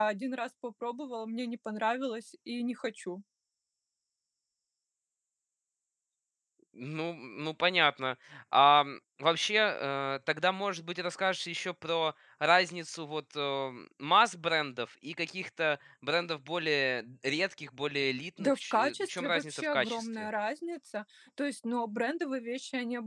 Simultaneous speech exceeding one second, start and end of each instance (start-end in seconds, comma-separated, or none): 18.4-20.3